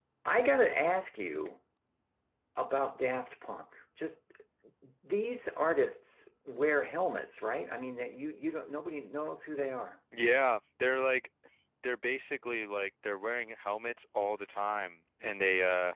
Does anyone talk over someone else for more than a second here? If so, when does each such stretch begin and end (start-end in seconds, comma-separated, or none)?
none